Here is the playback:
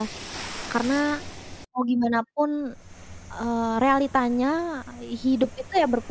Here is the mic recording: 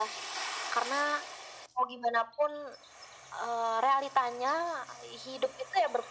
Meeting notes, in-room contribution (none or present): none